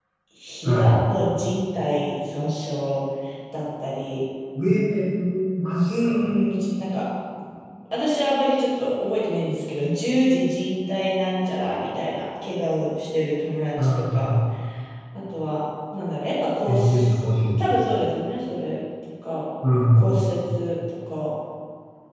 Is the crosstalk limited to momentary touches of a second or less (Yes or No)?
Yes